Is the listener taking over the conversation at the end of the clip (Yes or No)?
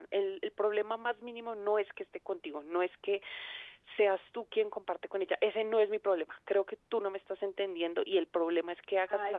Yes